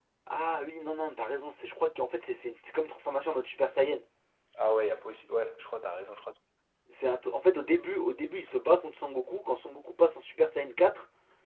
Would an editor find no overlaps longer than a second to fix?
Yes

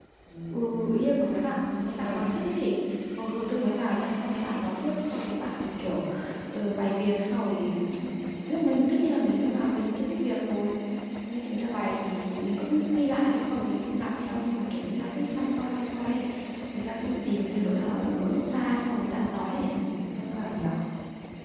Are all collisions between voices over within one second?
Yes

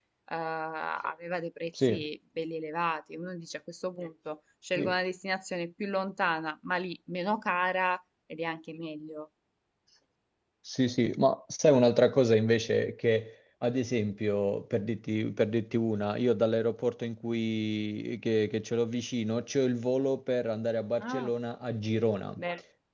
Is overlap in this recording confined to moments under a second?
Yes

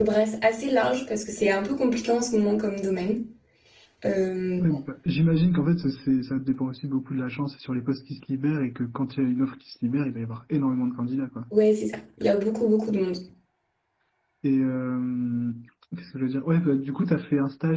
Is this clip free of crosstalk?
Yes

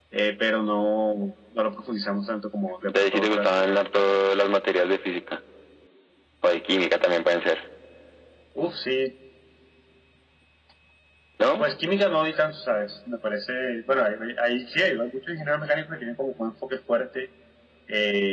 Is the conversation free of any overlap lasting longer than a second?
No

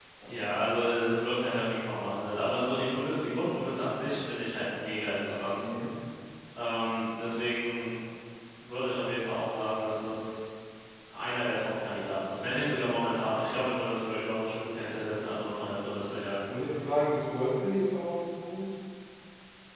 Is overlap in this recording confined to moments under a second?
Yes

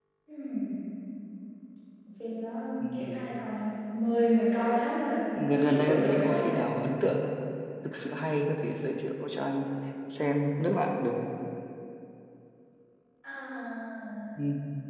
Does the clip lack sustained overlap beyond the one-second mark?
No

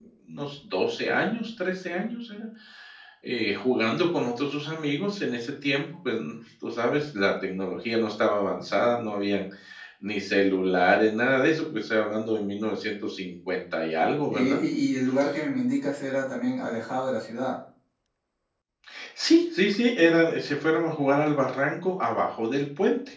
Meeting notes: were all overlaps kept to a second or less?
Yes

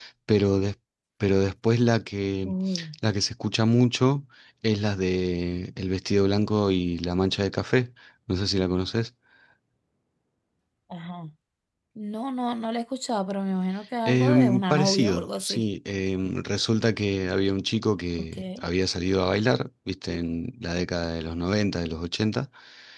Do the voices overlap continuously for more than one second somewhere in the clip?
Yes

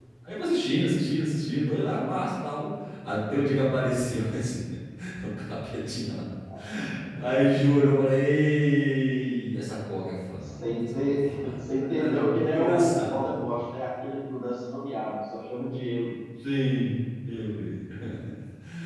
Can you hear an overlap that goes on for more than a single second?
Yes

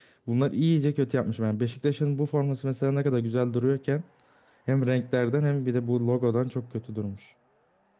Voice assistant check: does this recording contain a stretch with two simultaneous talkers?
No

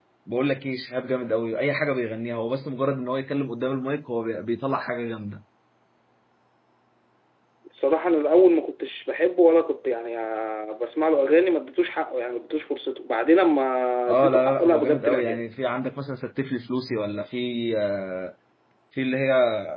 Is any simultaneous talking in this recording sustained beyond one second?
Yes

